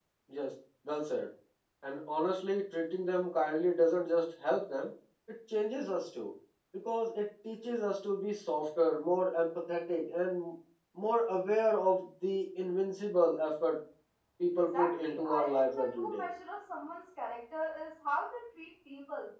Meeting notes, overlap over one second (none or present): present